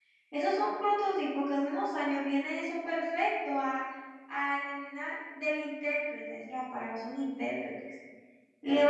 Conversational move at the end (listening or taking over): listening